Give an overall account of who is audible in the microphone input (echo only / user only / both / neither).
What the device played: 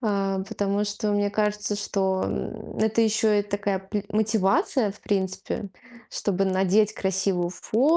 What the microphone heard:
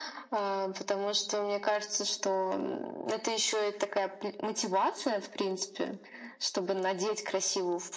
echo only